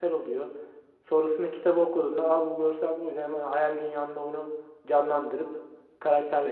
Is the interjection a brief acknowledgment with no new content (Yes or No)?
No